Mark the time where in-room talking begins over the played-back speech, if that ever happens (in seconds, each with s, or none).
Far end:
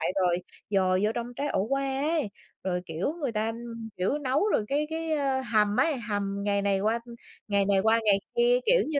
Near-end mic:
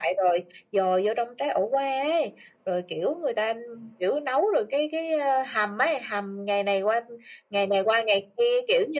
none